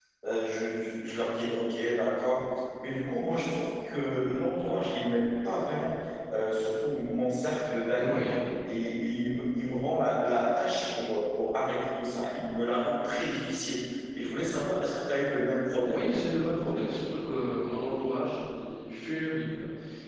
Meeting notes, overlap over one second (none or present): none